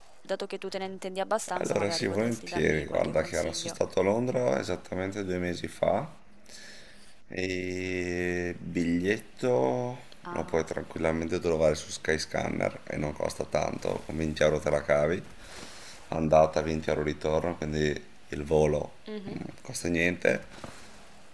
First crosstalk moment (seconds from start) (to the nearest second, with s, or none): 2 s